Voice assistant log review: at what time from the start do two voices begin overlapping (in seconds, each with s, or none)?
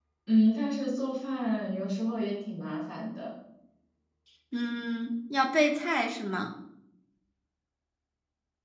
none